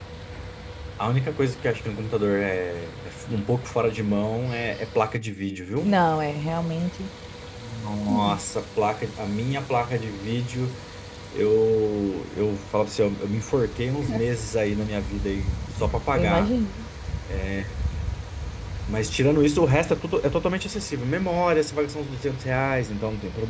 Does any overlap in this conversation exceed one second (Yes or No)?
No